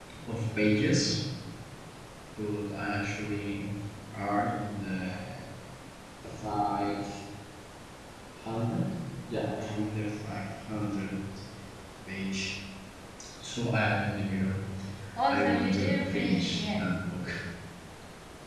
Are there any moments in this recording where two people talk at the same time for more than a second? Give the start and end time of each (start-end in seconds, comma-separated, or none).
15.3-16.8